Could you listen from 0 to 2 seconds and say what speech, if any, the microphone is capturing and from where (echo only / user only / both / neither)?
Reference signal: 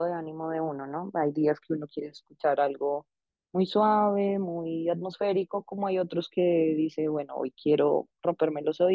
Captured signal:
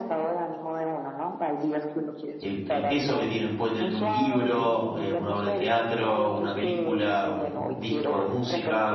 echo only